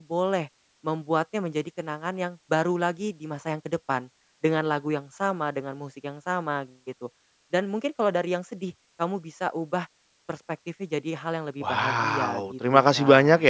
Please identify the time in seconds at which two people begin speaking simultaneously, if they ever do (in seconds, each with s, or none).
11.6 s